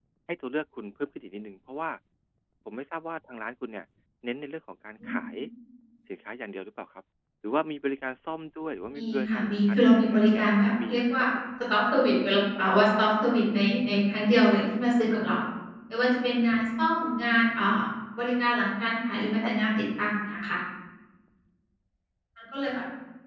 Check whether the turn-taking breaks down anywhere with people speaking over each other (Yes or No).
Yes